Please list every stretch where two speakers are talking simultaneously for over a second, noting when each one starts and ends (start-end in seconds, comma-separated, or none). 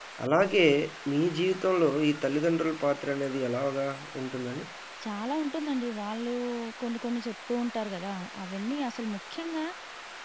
none